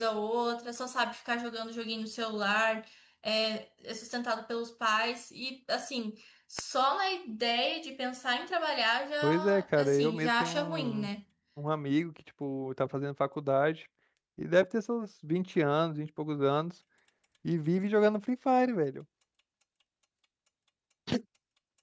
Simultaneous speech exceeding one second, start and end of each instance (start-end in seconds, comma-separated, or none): 9.2-11.1